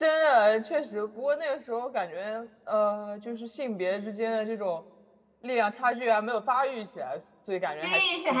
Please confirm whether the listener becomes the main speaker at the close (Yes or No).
Yes